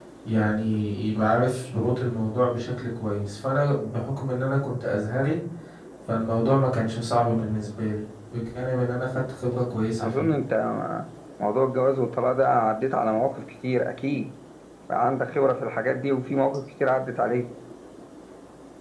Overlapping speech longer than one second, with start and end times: none

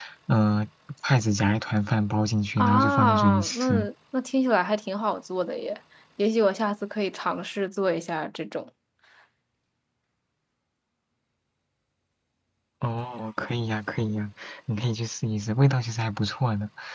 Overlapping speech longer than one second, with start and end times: 2.6-3.9

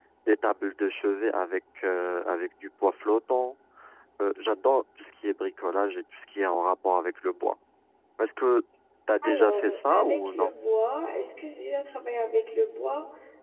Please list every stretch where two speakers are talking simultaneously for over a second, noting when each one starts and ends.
9.2-10.5

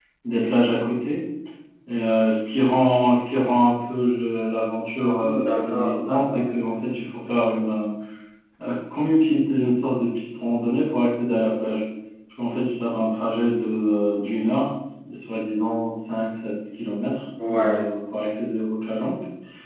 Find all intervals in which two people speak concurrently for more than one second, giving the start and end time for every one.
5.2-6.5

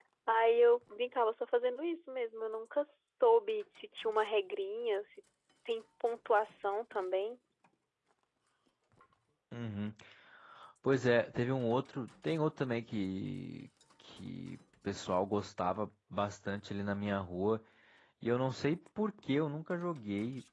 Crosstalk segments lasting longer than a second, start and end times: none

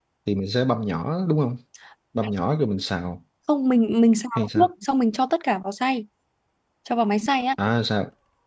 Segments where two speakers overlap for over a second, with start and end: none

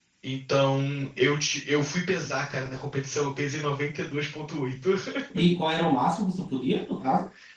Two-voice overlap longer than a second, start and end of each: none

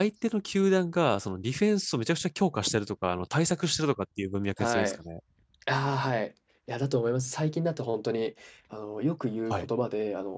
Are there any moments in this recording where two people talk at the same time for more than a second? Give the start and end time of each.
none

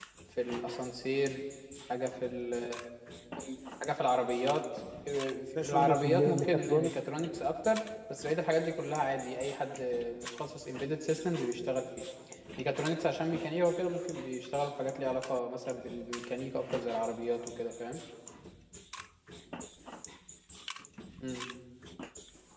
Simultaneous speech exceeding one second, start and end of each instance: 5.5-6.9

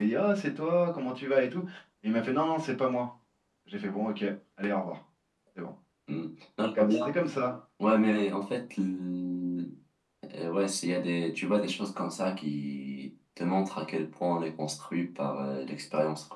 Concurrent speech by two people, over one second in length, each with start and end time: none

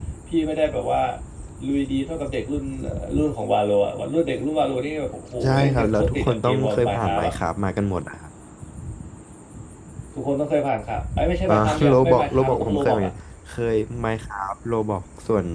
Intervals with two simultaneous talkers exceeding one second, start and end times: 5.4-7.3, 11.5-13.1

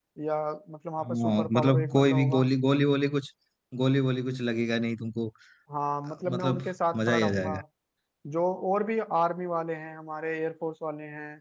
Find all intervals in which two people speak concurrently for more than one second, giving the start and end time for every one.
1.0-2.5, 6.2-7.5

